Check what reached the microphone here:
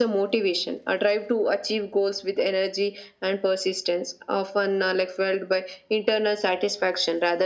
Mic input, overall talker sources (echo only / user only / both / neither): echo only